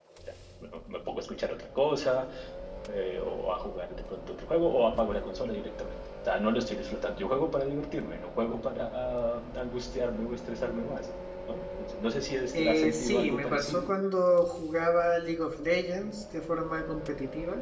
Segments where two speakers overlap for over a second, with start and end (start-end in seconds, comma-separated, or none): 12.6-13.9